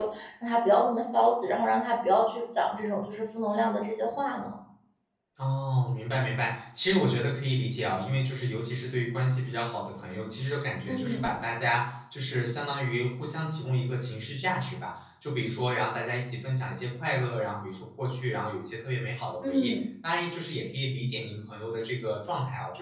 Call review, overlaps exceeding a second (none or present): none